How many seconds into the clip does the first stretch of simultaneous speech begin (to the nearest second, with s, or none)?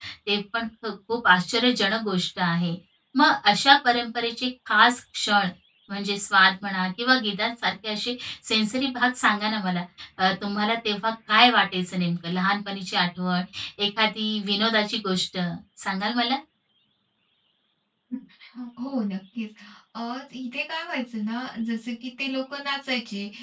none